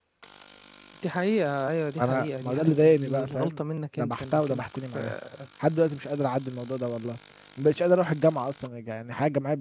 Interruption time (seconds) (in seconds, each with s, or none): 2.0 s